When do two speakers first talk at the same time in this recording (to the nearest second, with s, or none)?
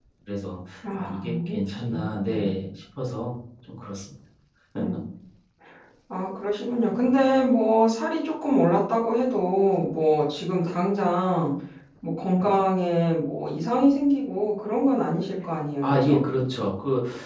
1 s